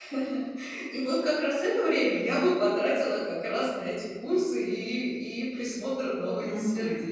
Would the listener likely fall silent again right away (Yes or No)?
No